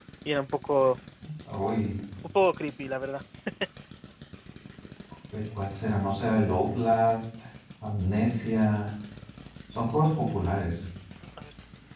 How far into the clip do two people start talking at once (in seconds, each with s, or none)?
none